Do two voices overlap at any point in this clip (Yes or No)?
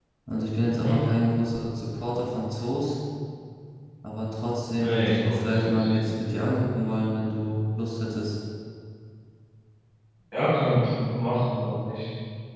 Yes